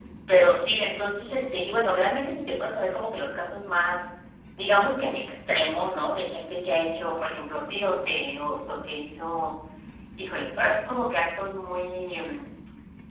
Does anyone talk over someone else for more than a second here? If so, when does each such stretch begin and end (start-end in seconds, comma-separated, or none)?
none